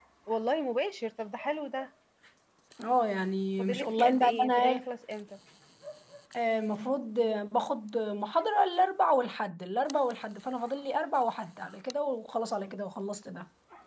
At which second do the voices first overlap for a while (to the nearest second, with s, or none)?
4 s